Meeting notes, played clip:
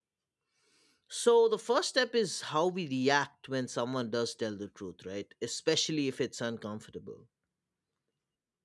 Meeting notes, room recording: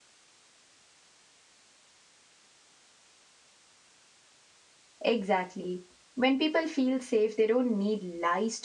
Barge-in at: 5.0 s

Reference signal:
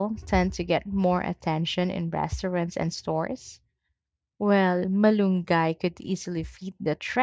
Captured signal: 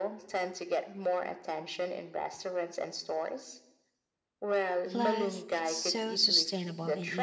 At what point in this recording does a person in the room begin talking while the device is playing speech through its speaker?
4.9 s

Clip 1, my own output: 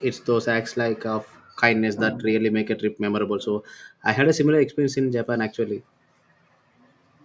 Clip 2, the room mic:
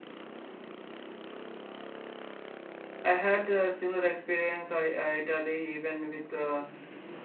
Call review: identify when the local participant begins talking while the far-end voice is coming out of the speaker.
3.0 s

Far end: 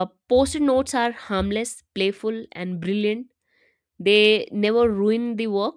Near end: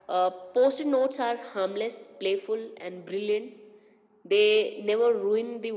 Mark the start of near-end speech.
none

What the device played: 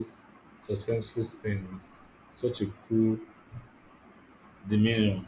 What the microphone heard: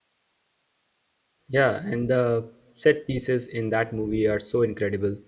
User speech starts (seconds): 1.5 s

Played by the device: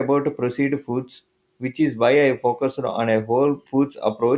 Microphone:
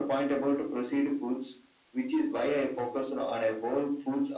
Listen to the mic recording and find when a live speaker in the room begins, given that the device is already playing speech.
none

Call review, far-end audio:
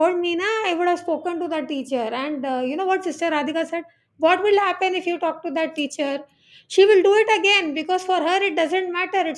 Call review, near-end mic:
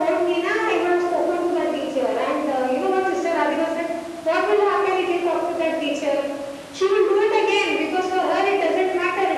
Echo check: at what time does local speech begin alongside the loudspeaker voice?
none

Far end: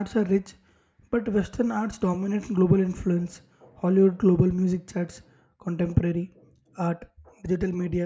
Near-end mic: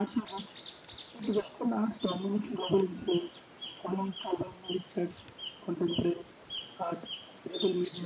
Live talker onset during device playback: none

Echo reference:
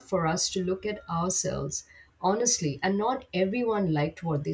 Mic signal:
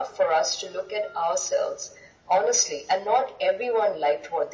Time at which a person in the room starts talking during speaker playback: none

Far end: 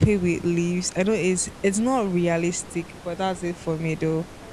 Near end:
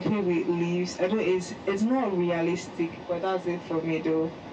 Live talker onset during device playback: none

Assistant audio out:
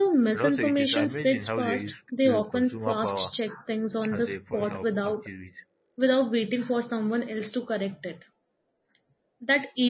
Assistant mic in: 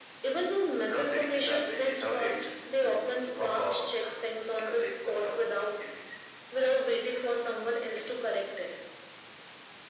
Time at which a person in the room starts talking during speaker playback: none

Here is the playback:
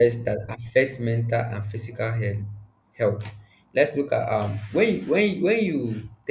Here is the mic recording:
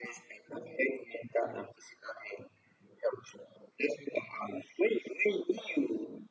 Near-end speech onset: none

